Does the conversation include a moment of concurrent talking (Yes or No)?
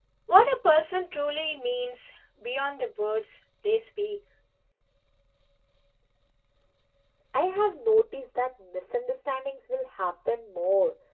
No